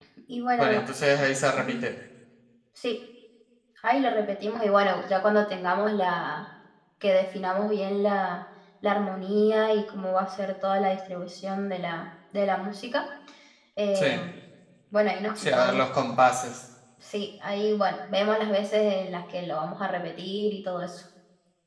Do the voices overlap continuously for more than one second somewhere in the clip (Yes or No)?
No